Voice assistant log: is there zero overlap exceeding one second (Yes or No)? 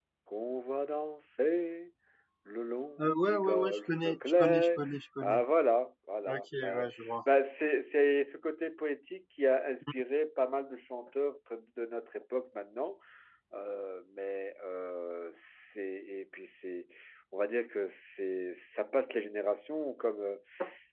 No